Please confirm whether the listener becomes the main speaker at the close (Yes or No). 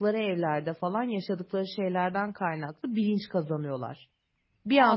Yes